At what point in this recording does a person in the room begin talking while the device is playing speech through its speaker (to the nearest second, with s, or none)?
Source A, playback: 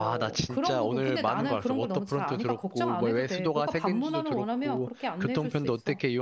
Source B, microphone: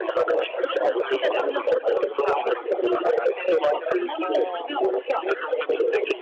4 s